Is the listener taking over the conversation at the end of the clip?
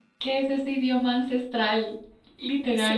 Yes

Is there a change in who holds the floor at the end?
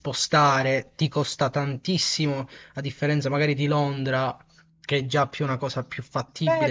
Yes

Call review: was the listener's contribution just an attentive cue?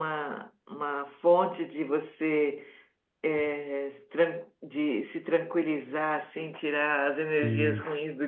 Yes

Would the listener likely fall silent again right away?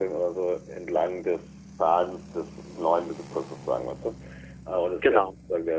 Yes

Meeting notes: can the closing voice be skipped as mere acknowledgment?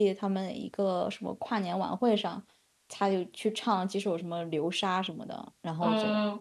No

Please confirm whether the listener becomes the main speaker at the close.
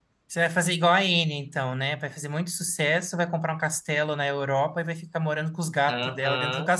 Yes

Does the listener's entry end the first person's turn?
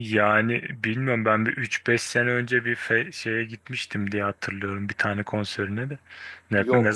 No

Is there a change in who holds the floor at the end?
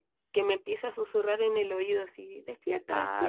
Yes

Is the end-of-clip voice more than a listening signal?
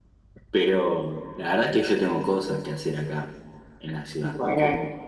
No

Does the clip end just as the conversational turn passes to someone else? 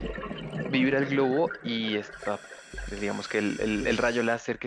No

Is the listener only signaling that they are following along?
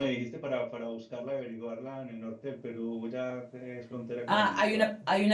No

